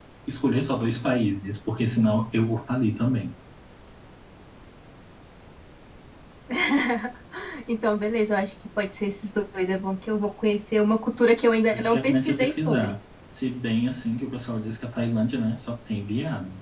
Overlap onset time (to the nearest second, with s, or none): 12 s